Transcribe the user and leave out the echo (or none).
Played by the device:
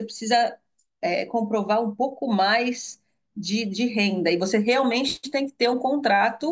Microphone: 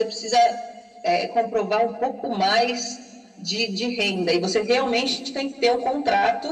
none